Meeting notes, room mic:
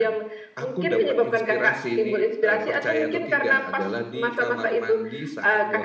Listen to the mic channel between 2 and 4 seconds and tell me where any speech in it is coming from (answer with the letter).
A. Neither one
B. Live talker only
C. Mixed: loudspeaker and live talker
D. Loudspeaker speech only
D